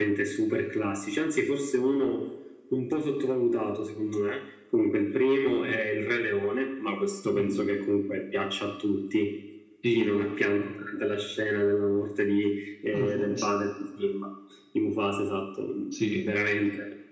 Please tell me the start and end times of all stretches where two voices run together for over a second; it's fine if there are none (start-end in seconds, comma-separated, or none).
none